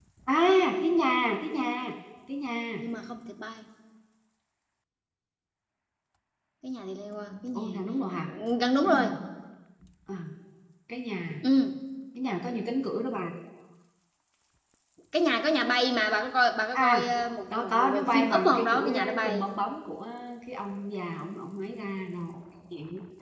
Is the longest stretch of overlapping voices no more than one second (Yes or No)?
No